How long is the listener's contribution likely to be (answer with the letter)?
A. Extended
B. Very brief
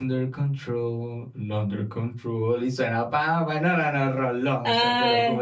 B